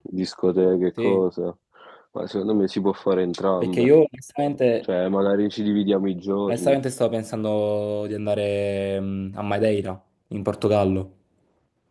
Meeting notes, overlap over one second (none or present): none